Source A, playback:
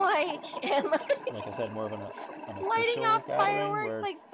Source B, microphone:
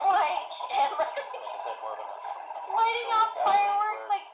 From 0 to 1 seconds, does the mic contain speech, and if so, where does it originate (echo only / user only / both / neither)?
echo only